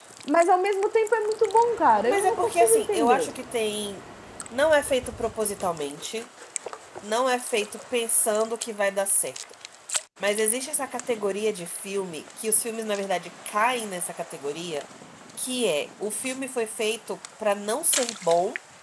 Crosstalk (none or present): present